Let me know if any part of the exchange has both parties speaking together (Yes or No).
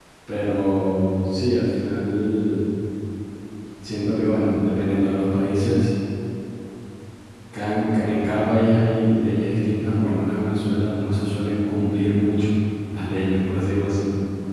No